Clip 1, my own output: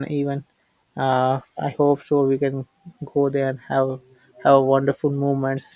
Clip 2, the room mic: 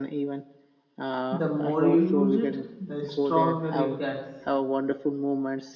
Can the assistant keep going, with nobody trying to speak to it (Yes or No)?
No